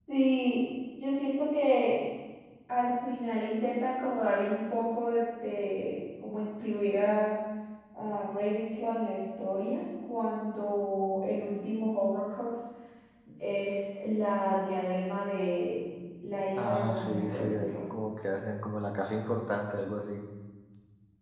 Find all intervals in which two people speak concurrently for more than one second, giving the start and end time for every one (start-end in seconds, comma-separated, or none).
16.6-17.8